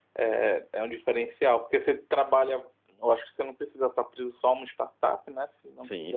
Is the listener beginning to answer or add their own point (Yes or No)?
Yes